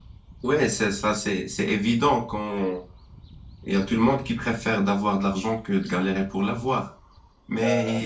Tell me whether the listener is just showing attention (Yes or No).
Yes